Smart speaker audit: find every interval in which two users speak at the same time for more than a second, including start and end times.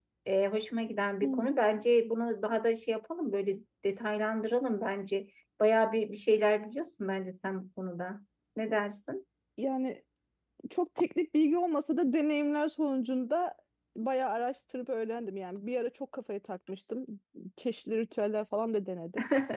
none

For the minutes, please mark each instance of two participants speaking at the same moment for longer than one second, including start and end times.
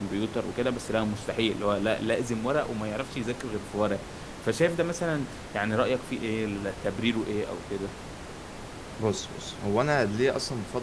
none

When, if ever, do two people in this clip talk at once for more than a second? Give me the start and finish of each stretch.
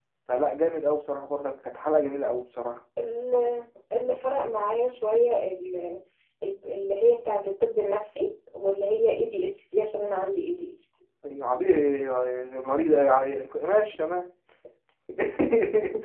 none

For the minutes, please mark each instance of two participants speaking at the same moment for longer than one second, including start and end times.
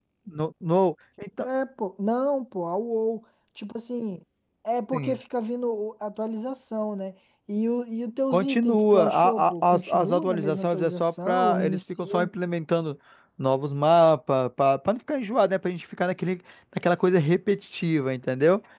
8.3-12.3

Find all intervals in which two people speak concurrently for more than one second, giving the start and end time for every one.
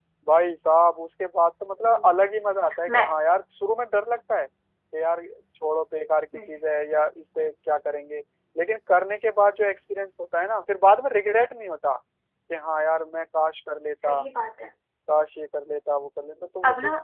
none

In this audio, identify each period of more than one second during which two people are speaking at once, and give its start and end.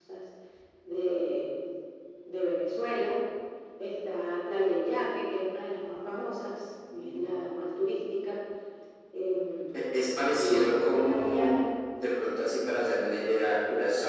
10.4-11.6

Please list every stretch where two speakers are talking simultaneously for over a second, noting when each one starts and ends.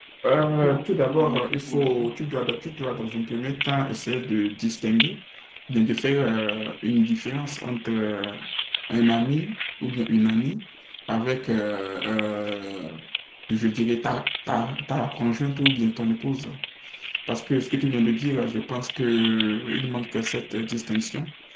0.6-2.0

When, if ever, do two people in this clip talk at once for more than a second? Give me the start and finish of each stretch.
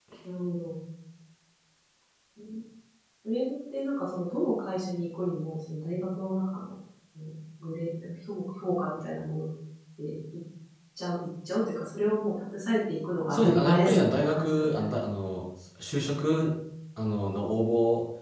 13.3-14.8

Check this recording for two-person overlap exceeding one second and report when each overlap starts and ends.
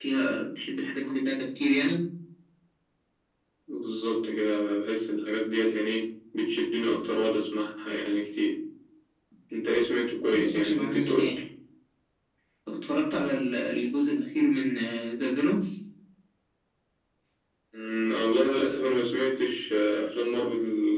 10.1-11.3

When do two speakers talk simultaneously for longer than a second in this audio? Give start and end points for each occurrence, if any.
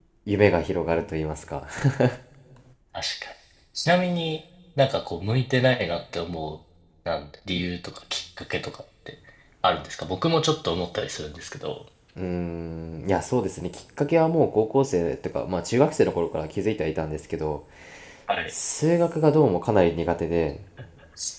none

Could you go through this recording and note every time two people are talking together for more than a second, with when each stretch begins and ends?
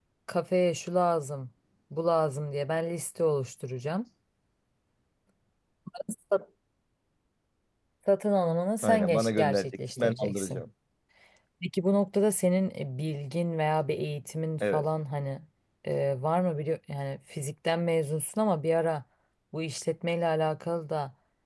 8.8-10.6

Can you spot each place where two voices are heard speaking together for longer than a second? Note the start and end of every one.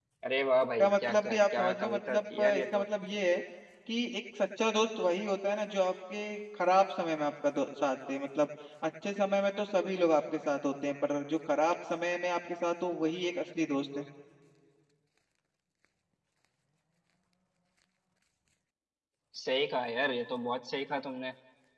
0.8-2.8

